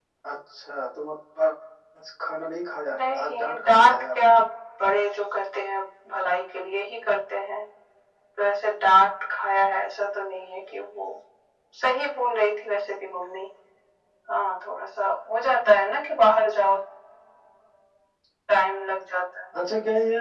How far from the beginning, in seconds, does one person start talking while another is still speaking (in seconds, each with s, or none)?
2.9 s